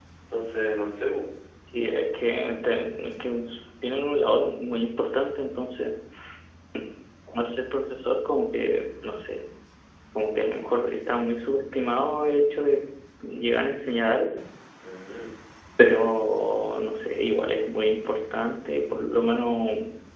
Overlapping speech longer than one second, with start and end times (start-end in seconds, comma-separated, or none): none